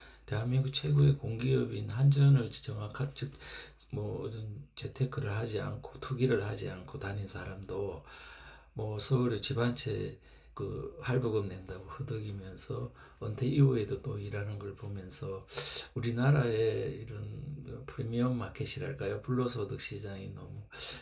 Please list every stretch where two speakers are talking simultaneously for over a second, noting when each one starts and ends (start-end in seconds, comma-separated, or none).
none